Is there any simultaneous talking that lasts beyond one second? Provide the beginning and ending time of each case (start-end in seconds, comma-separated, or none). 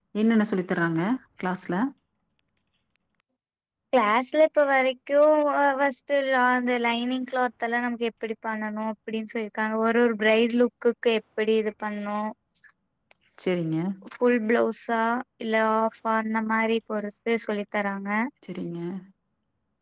none